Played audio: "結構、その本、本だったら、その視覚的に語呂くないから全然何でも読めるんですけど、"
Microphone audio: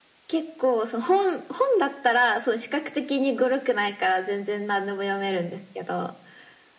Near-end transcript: none

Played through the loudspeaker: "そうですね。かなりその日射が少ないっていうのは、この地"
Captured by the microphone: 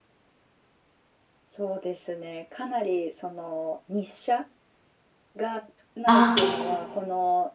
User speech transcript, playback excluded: ああ、結構

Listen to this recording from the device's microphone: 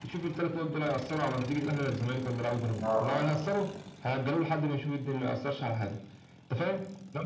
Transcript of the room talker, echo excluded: اه

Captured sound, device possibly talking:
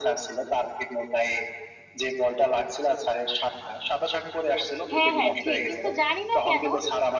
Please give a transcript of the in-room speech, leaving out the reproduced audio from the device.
হ্যাঁ হ্যাঁ ঠিক কিন্তু জানি না কেন

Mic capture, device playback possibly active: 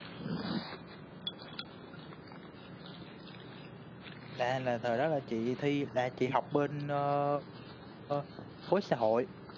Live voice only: là là thời đó là chị thi là chị học bên ờ, ờ, khối xã hội

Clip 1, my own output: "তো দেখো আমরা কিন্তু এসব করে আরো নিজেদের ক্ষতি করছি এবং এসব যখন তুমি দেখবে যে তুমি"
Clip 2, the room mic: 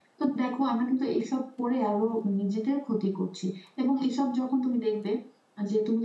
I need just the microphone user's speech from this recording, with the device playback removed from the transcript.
none

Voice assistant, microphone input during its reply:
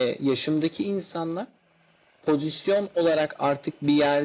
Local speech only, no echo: none

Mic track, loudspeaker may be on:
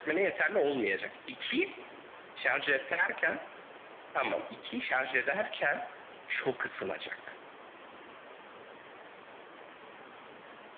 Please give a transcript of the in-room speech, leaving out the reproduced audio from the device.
none

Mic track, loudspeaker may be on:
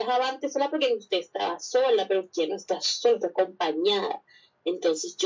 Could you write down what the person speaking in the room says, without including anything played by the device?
none

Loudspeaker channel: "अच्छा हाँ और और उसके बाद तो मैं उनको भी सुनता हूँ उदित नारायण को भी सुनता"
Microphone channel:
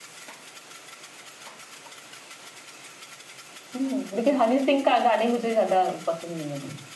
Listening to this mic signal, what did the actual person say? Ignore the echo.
हम्म लेकिन हनी सिंह का गाने मुझे ज्यादा पसंद नहीं है अभी

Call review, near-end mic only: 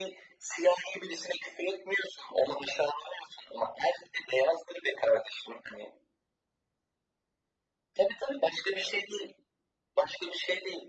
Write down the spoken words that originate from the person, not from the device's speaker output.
none

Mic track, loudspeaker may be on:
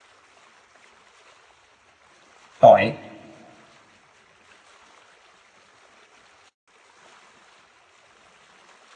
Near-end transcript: tỏi,

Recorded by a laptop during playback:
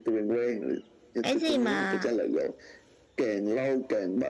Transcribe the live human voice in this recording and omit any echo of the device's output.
Cái gì mà

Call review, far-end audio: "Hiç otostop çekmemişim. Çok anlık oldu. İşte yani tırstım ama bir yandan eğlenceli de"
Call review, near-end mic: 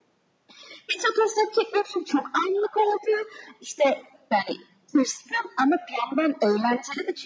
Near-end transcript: none

